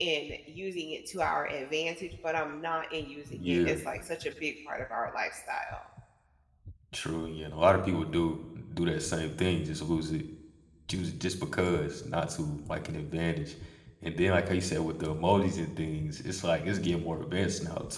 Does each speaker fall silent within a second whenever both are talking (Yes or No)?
Yes